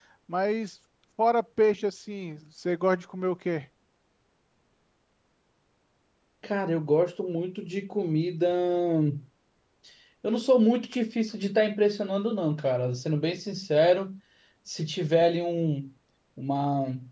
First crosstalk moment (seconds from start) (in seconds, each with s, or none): none